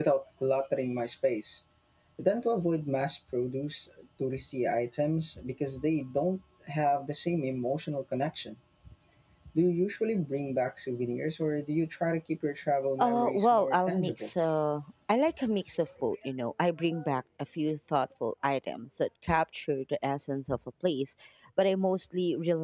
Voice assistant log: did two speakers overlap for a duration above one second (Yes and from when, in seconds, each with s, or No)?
Yes, from 13.0 s